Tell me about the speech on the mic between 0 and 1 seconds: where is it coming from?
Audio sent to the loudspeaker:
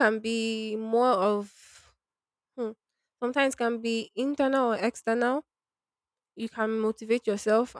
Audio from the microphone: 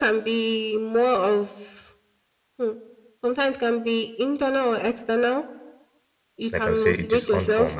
echo only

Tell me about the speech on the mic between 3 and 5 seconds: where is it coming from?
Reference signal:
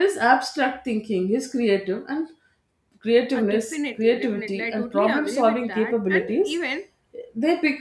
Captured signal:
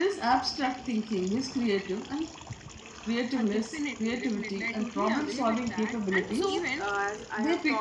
echo only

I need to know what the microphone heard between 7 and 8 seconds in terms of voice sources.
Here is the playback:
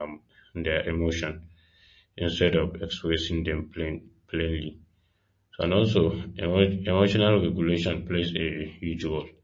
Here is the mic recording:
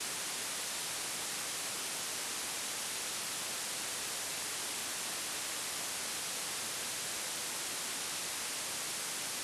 neither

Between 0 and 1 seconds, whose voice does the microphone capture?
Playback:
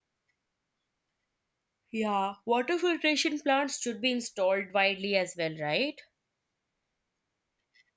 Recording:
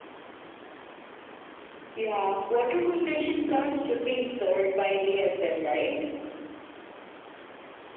neither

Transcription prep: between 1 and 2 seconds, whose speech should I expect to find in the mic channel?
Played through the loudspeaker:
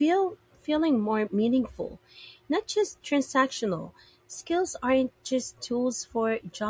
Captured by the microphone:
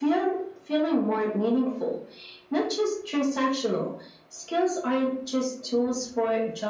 echo only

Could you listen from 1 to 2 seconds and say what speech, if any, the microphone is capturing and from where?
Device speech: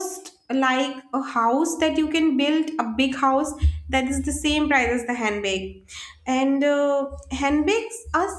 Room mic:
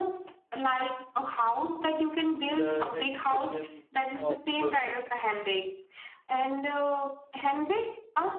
echo only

